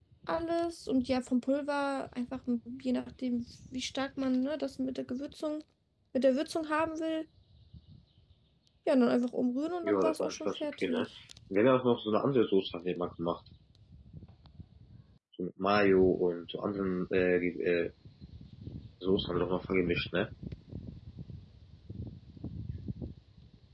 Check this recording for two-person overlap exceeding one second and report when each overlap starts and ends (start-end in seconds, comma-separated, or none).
9.8-11.1